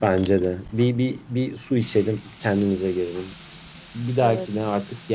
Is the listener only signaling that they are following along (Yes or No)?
Yes